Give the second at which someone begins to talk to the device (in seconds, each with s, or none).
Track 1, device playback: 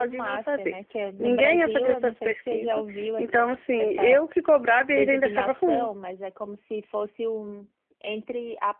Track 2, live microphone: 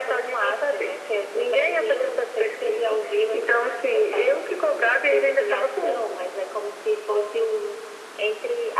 none